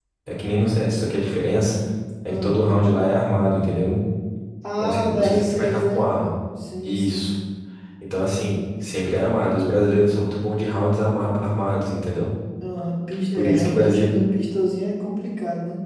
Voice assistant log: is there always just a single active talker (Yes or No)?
No